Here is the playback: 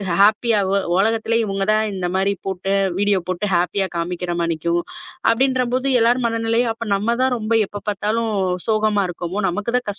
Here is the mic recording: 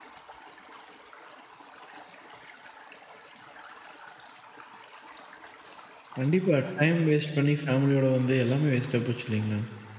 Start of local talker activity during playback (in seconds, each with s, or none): 6.2 s